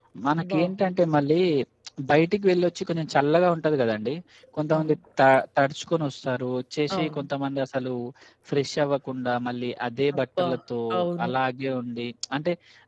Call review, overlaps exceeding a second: none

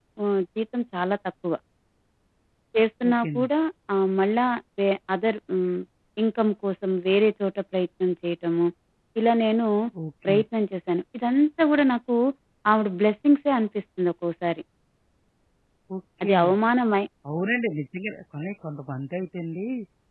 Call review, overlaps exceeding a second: none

